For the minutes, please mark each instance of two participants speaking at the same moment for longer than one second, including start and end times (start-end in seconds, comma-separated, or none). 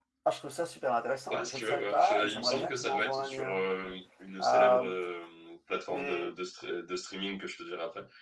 1.3-3.6